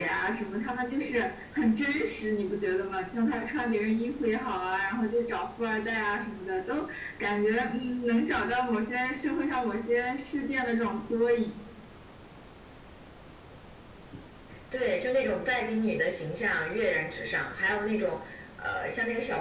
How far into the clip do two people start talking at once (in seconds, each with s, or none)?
none